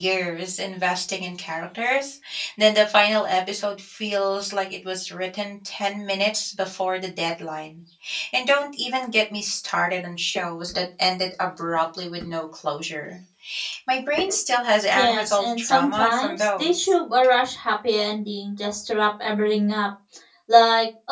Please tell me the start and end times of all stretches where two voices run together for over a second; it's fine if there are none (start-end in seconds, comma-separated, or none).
14.9-16.9